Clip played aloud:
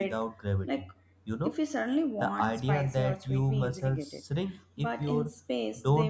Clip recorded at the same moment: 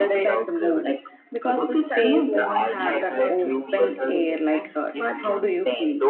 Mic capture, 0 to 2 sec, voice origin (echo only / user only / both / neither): both